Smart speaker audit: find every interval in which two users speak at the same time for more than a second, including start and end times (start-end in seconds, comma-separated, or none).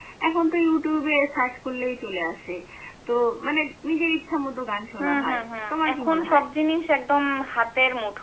5.0-6.4